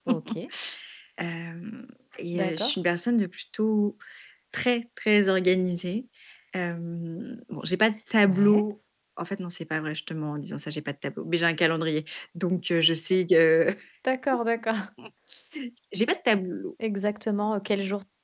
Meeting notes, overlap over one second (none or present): none